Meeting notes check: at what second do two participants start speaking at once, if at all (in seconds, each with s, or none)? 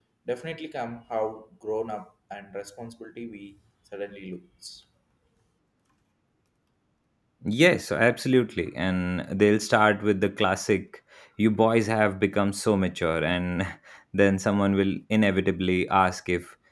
none